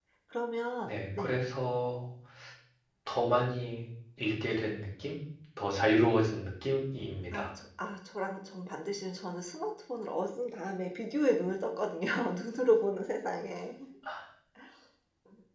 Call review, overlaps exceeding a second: none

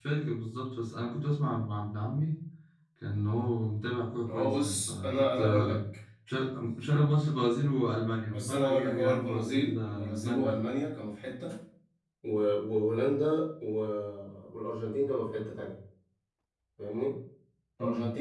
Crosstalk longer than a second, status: present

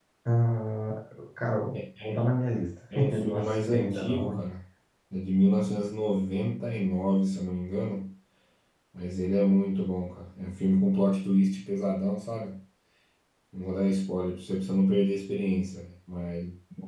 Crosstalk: present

